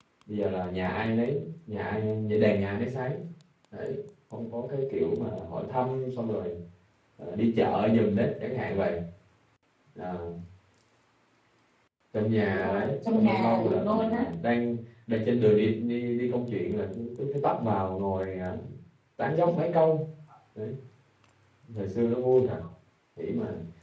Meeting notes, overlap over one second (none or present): present